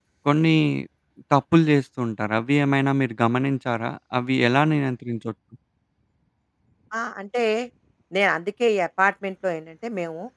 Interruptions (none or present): none